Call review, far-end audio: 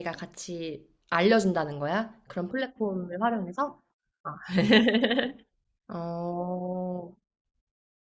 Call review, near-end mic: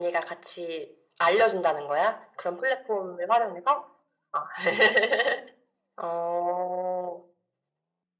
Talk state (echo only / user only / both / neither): echo only